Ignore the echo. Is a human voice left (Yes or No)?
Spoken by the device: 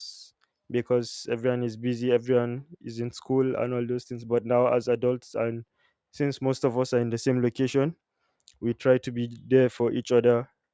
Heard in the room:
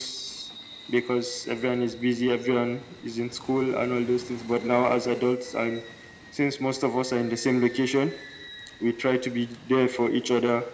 No